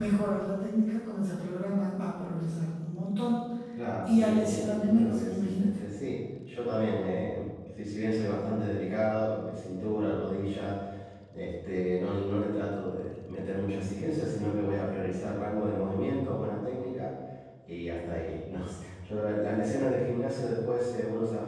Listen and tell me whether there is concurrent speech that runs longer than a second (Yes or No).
Yes